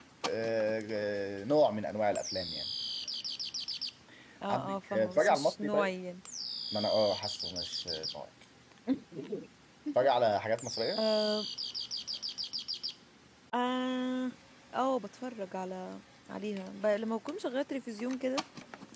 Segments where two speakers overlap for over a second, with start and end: 4.5-5.9

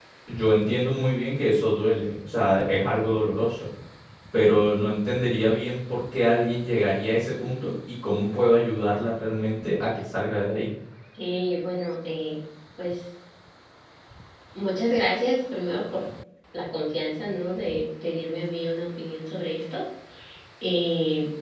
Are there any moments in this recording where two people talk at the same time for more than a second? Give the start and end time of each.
none

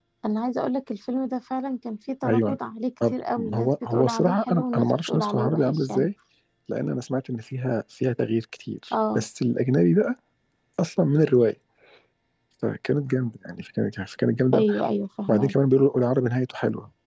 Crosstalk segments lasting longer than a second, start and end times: 3.5-6.1

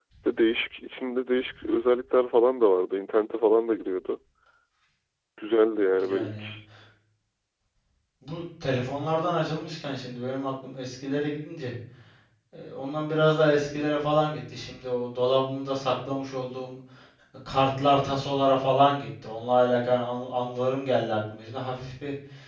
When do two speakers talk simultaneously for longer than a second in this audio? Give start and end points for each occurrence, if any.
none

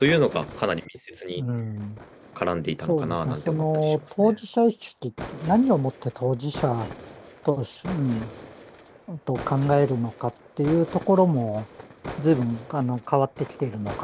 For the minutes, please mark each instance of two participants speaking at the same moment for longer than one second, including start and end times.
2.9-4.3

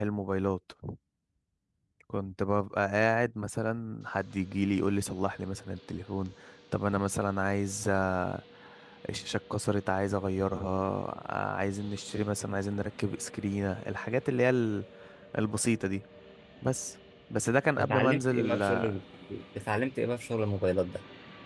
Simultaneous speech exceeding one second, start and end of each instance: 17.8-19.0

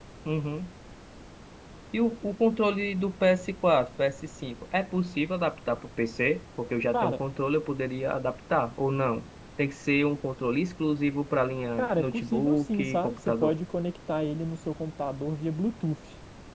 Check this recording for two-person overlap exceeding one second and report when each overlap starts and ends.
11.8-13.6

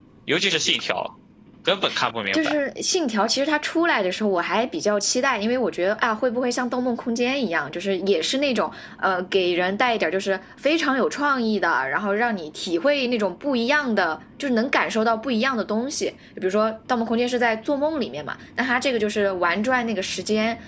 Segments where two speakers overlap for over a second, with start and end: none

